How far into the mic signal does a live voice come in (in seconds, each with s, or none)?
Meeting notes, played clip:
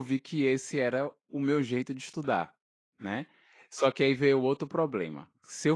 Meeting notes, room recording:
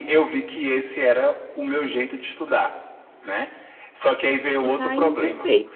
4.6 s